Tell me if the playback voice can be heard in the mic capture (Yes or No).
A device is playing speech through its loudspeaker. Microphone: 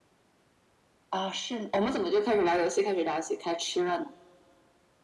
Yes